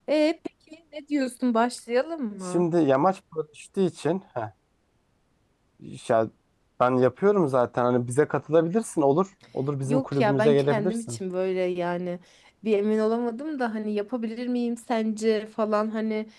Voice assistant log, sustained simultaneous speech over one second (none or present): present